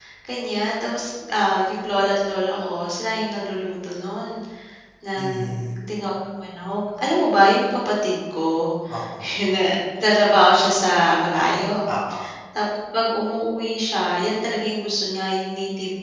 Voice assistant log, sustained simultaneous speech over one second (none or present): none